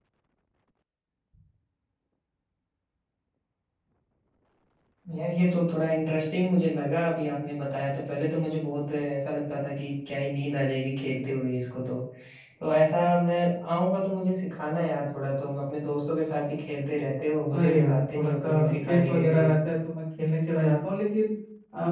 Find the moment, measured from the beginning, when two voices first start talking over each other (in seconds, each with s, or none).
17.5 s